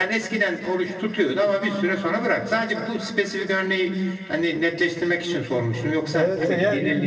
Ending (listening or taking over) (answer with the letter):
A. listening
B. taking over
B